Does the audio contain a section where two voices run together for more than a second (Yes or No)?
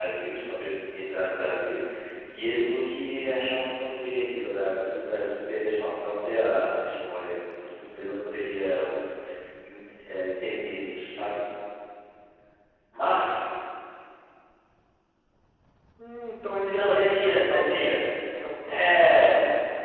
Yes